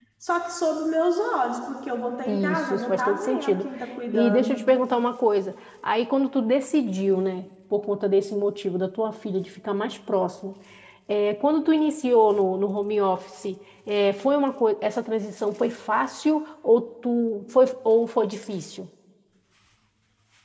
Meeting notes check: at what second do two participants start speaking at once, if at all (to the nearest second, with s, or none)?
2 s